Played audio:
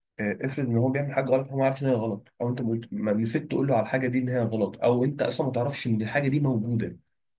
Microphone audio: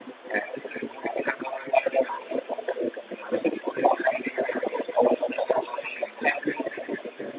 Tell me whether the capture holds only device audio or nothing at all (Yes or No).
Yes